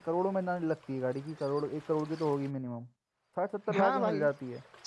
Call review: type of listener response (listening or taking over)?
taking over